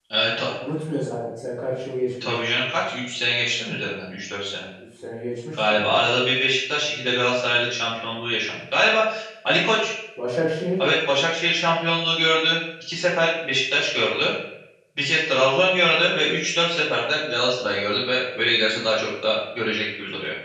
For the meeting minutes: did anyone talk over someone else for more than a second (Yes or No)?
No